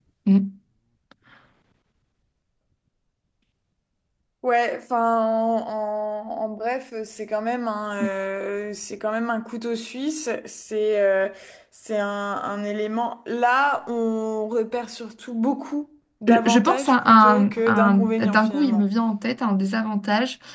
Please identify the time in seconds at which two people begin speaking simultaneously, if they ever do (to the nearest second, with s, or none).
16 s